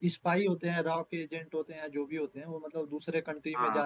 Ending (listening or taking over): listening